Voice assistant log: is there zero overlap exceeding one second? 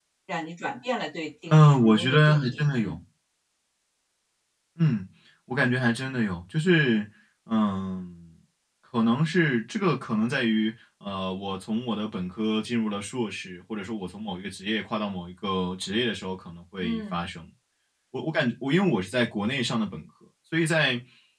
No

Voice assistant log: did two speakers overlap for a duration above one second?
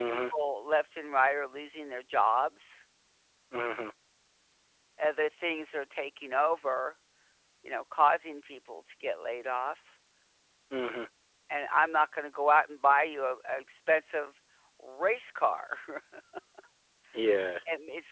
No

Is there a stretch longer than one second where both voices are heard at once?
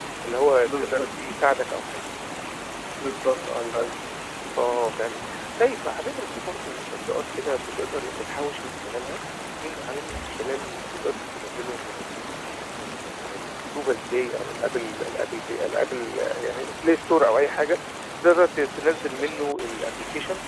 No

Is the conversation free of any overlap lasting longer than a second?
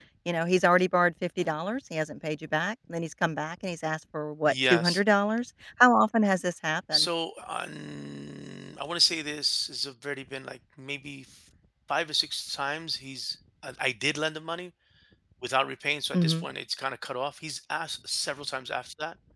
Yes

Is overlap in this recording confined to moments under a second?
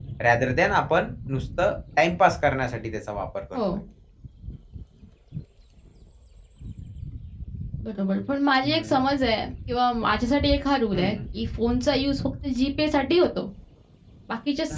Yes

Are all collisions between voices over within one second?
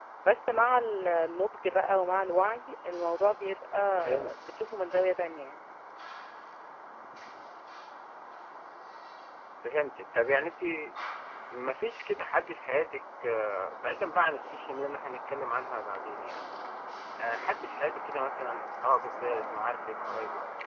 Yes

